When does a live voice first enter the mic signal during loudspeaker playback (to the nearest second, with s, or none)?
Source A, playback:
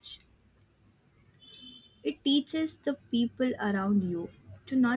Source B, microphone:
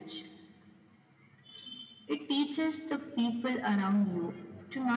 none